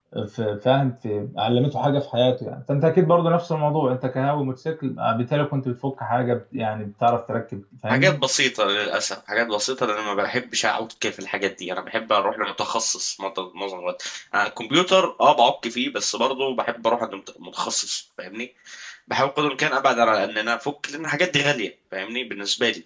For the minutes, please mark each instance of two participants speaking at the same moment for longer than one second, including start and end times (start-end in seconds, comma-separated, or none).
none